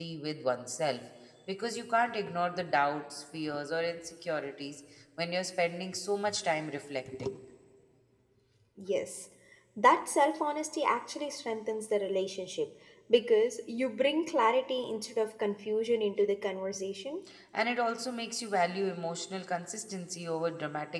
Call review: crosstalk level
none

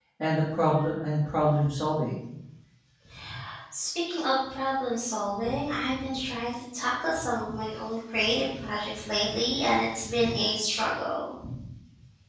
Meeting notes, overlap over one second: none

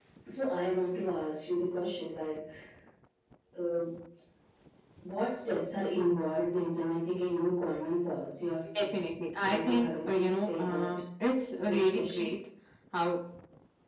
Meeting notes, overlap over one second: present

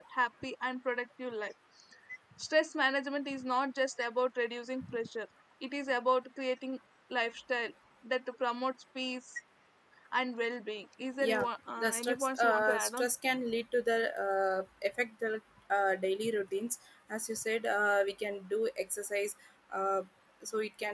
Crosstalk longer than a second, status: present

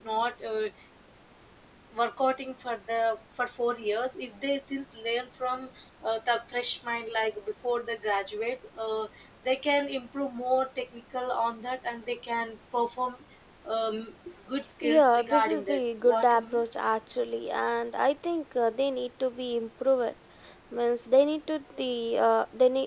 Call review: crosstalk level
present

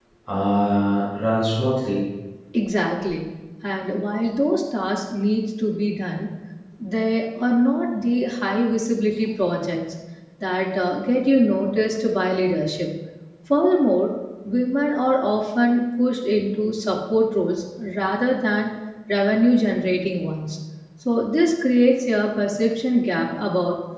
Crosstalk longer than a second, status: none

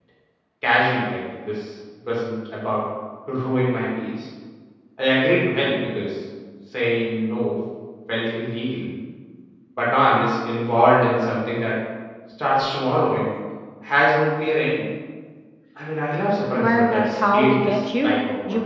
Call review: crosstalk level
present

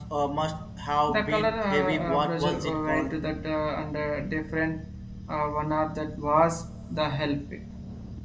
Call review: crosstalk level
present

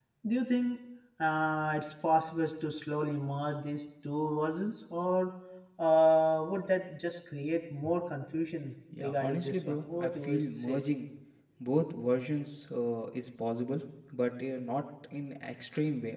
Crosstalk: present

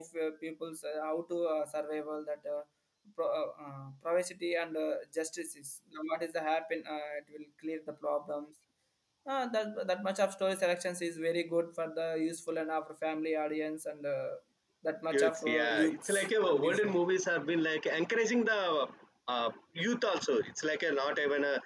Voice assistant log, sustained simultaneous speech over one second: present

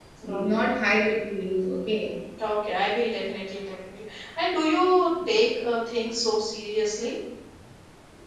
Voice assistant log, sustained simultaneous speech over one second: none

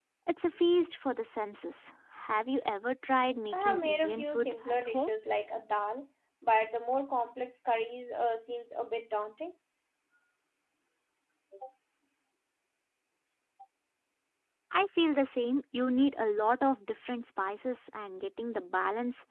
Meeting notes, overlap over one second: present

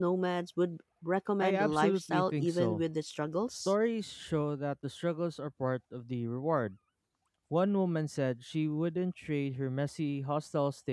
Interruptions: present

